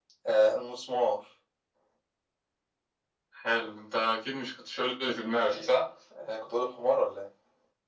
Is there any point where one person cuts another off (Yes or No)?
No